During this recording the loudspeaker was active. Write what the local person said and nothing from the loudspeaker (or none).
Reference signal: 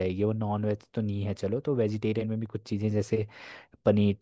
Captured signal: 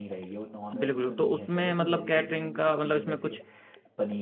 बिल्कुल तो उसमें मतलब कैटरिंग का मतलब इसमें कुछ